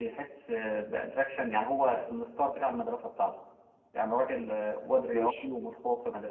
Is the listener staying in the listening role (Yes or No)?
Yes